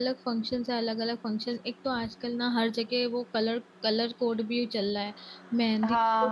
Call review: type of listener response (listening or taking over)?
taking over